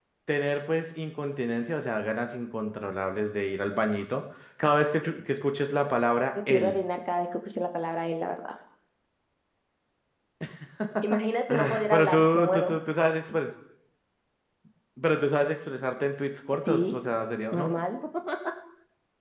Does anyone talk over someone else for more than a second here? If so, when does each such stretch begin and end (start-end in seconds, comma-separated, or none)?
11.5-12.7